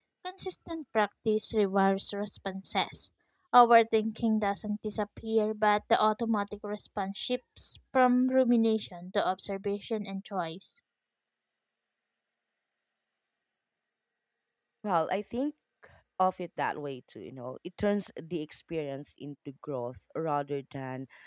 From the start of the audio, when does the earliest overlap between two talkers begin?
none

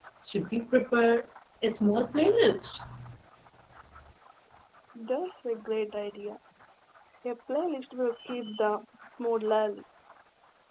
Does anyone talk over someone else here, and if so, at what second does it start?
none

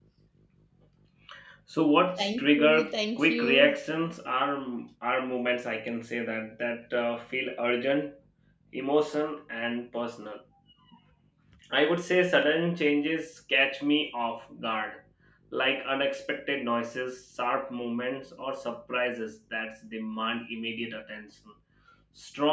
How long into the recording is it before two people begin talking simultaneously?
2.2 s

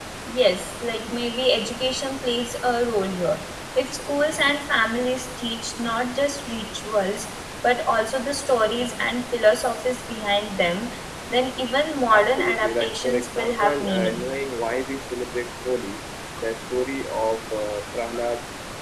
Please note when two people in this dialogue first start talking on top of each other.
12.1 s

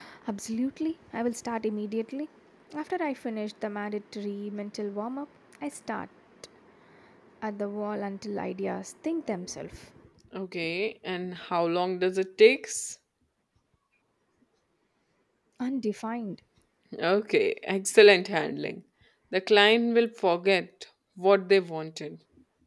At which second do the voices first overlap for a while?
none

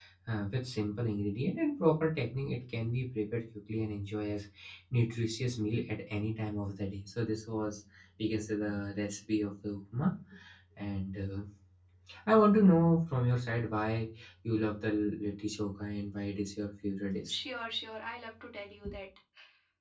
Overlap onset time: none

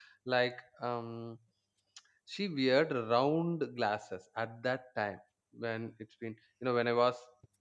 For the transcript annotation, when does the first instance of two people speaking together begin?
none

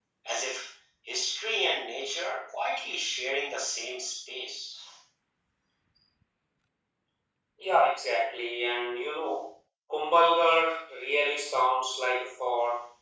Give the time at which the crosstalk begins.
none

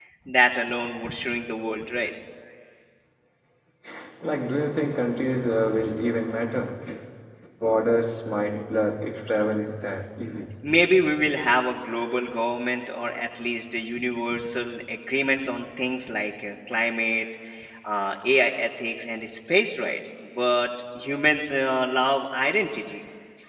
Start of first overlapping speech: none

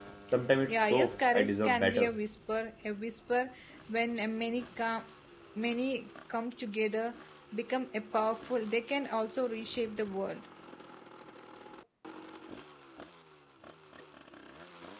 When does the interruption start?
0.7 s

